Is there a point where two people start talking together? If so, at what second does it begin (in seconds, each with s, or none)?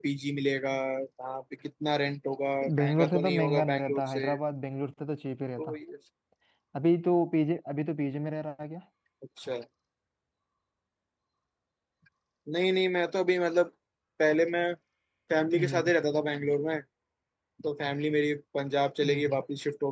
2.8 s